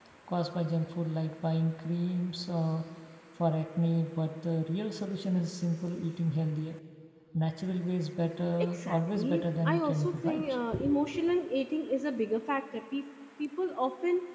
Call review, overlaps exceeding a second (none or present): present